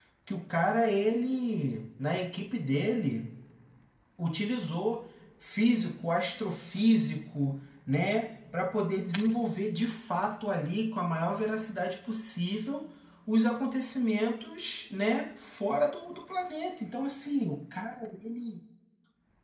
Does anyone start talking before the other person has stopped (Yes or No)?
No